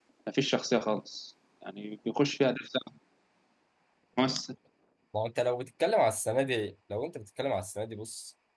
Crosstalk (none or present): none